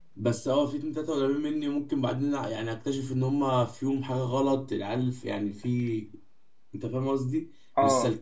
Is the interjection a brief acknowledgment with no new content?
Yes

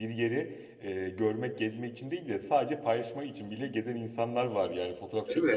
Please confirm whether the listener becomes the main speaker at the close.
No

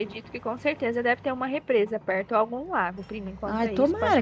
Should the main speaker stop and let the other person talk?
Yes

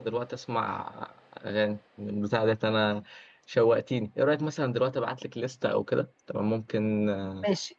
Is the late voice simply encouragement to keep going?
No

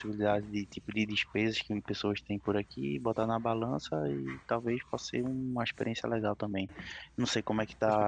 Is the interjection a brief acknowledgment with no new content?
No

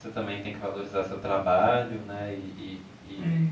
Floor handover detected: No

